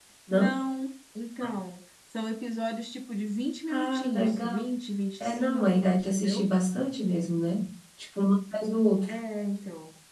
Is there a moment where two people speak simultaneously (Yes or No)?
Yes